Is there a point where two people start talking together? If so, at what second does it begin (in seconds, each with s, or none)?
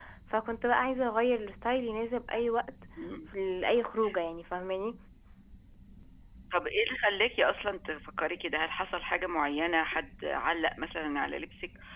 none